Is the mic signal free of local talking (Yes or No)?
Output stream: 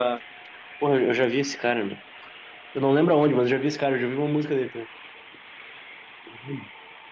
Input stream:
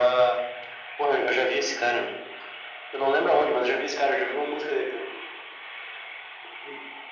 Yes